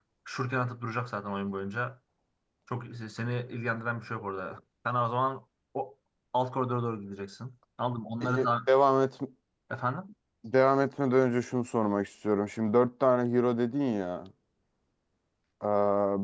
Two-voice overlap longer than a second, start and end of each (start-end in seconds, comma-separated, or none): none